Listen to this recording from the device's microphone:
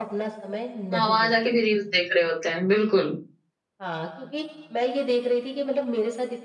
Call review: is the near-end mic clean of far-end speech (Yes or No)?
No